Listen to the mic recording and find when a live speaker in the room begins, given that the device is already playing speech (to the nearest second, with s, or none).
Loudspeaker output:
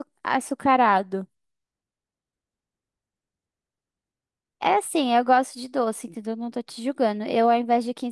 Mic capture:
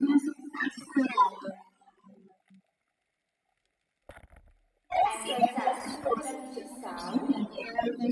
5 s